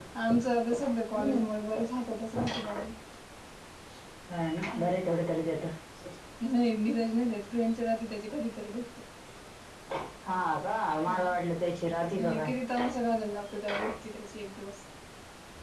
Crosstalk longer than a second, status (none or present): none